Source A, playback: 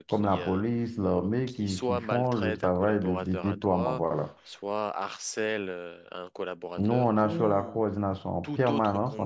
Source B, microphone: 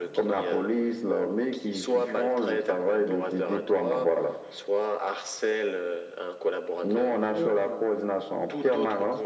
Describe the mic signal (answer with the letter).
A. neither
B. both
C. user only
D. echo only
D